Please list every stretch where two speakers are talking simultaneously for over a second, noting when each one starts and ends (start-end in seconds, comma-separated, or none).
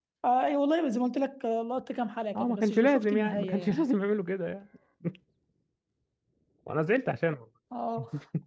2.4-3.8